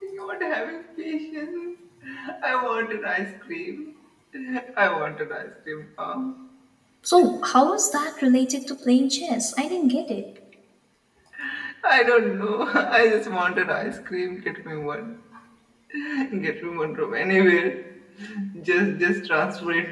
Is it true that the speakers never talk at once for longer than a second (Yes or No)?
Yes